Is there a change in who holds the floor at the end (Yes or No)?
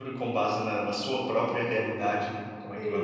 Yes